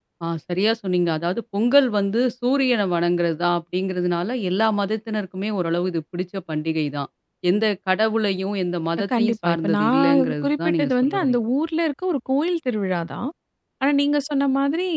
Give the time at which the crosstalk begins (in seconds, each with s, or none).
9.1 s